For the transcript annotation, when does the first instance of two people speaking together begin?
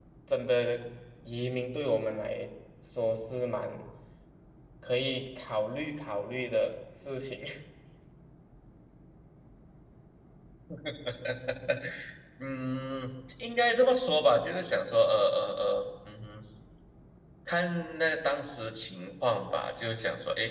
none

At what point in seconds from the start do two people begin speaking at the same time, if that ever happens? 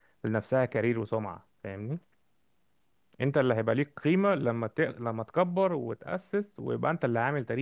none

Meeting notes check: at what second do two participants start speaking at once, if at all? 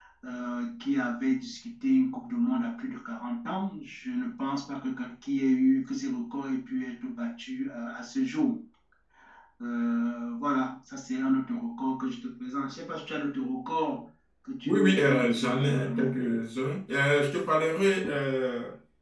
15 s

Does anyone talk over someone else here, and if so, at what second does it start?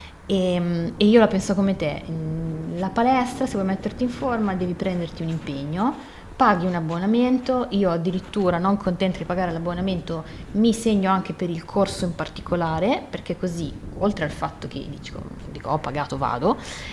none

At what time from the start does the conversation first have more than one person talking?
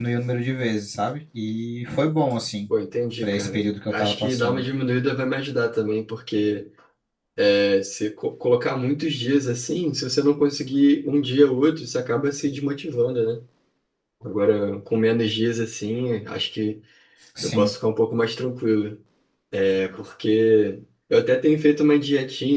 3 s

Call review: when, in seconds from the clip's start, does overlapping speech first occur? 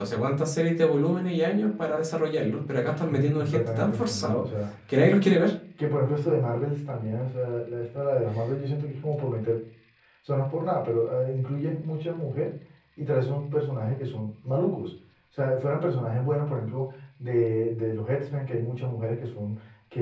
3 s

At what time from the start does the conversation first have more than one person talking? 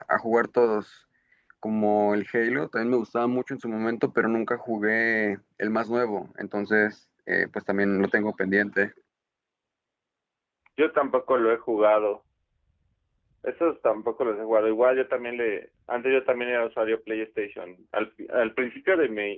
none

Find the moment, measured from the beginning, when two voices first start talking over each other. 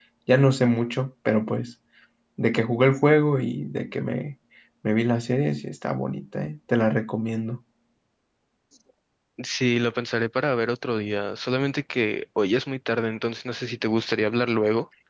none

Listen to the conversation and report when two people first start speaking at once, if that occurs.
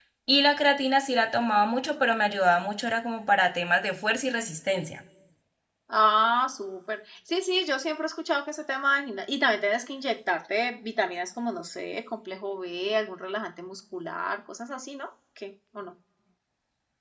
none

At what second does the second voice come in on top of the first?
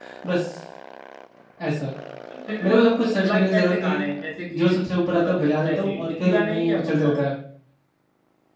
3 s

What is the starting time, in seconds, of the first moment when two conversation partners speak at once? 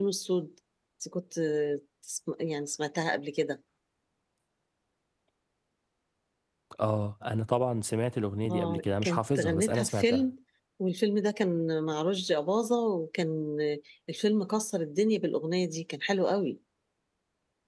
8 s

